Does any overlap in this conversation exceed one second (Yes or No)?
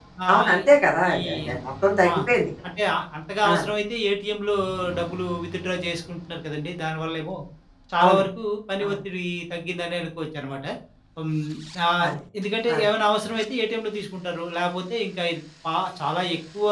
No